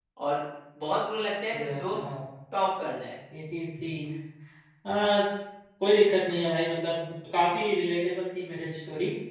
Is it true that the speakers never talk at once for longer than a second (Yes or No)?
Yes